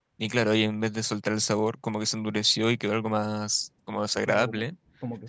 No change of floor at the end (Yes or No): No